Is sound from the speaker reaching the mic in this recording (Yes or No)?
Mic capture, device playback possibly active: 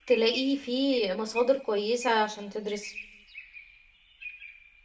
No